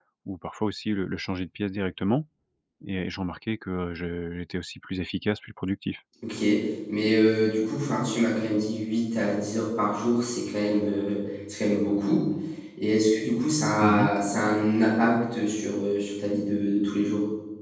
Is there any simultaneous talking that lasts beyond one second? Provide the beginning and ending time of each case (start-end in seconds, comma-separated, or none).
none